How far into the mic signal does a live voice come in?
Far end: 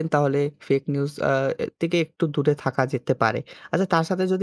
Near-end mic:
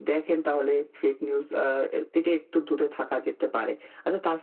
none

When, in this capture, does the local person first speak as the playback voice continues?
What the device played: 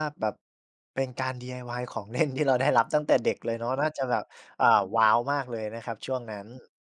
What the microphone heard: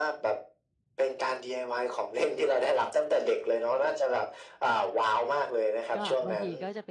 5.9 s

